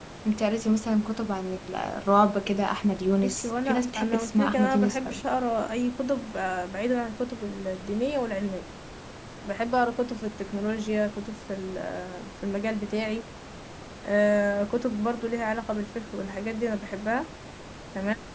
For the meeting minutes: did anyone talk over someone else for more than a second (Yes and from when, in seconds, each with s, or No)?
Yes, from 3.2 s